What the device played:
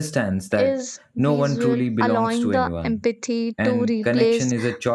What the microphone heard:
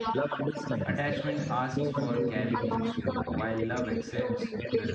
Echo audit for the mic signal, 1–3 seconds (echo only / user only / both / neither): both